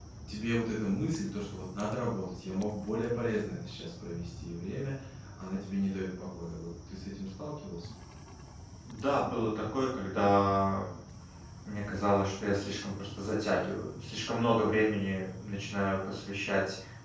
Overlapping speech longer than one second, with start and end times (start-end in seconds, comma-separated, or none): none